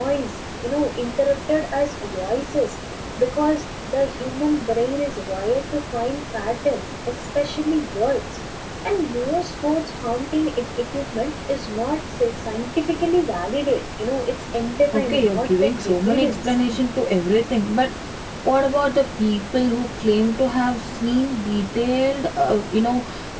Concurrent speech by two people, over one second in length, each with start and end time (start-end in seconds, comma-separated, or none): 14.9-16.5